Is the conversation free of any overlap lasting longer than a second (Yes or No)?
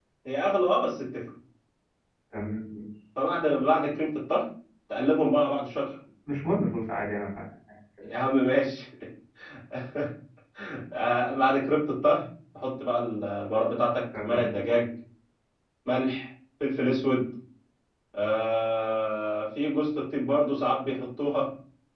Yes